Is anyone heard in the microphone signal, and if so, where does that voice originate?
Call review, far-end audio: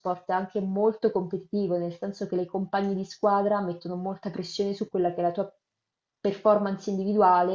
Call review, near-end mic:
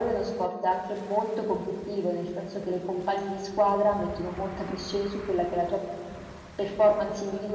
echo only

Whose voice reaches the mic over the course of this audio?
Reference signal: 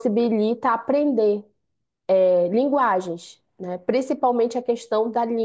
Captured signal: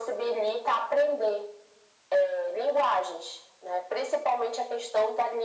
echo only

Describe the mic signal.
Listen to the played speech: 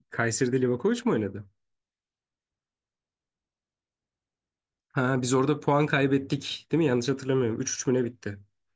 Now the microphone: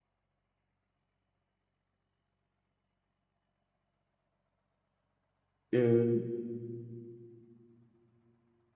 user only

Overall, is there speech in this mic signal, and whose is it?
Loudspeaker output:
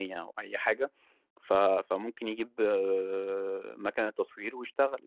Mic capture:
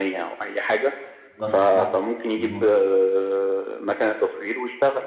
both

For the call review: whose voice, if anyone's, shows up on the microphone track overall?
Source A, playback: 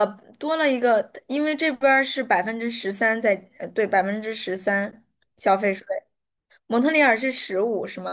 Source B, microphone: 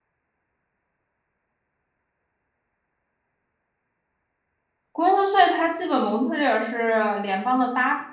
user only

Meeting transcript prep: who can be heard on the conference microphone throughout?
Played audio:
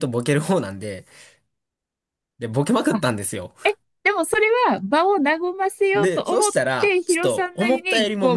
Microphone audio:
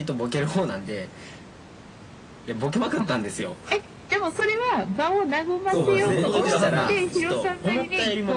both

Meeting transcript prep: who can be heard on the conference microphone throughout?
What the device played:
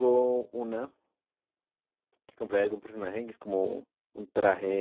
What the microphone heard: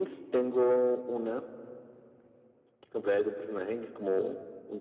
echo only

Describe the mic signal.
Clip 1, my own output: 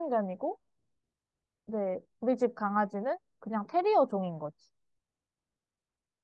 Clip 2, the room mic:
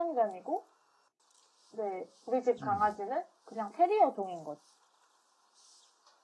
both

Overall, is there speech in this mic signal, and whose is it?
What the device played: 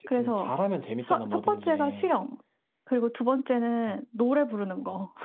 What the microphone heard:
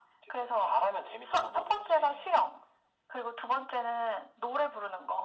echo only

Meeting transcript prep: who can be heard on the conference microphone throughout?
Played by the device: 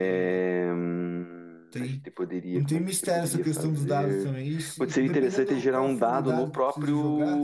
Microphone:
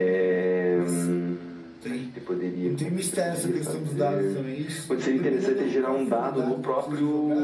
both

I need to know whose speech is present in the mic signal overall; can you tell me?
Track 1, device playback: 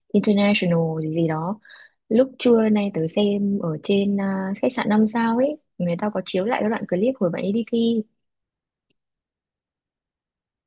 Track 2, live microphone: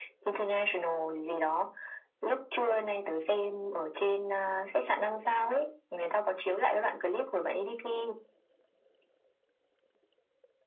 echo only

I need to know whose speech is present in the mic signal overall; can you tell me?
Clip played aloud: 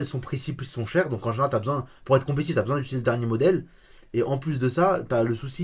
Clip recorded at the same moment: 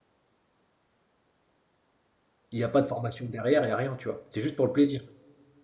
user only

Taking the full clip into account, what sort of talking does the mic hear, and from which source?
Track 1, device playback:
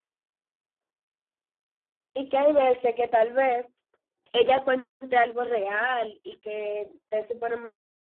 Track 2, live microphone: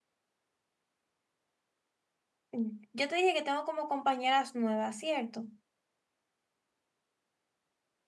user only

